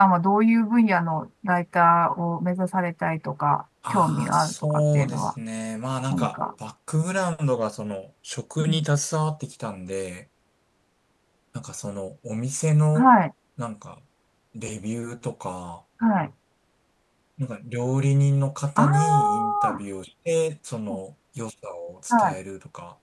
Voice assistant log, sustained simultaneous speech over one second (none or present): present